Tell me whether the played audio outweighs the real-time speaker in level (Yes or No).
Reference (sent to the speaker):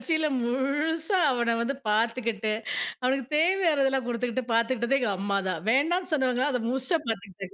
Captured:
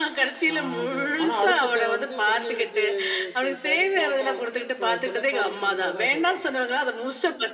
Yes